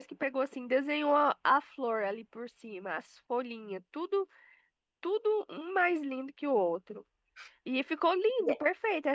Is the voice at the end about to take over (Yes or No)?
No